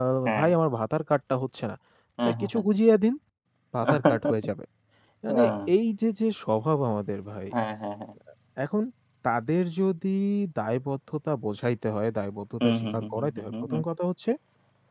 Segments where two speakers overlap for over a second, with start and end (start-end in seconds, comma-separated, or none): 12.6-13.8